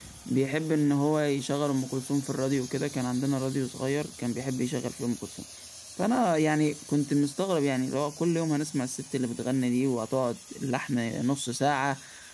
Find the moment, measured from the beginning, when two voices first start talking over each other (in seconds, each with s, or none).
none